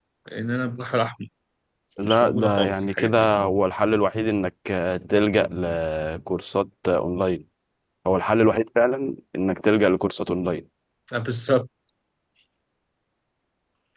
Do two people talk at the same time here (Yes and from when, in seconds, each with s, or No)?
Yes, from 2.0 s